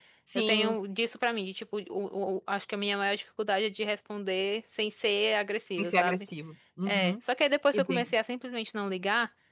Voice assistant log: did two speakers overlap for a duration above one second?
No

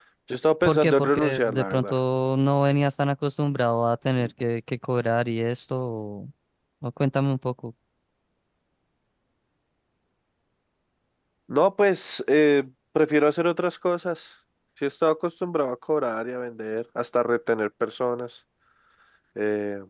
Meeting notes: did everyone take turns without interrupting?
No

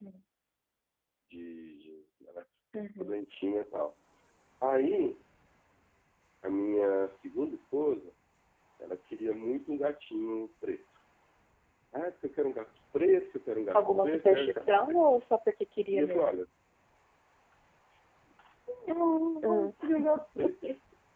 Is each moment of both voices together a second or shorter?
No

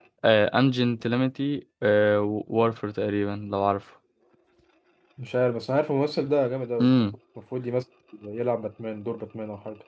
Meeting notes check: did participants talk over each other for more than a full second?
No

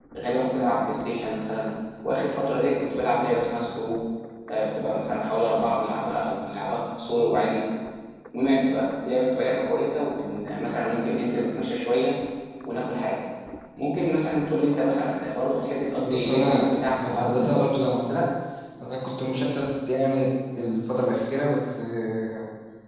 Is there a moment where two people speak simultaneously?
Yes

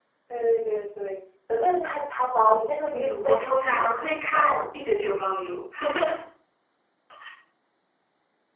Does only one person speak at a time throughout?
No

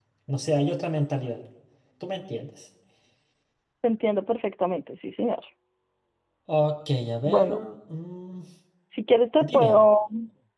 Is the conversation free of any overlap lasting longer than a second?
Yes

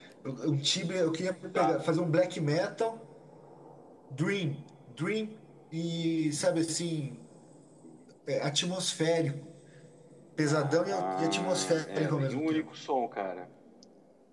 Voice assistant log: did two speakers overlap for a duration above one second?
Yes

